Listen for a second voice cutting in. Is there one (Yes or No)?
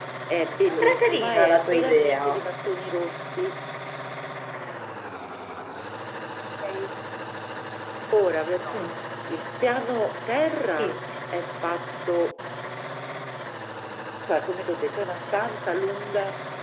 Yes